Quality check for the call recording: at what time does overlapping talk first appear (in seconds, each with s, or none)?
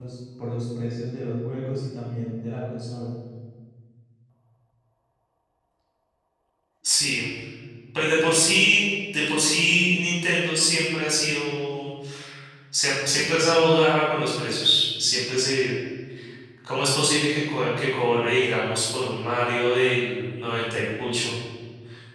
none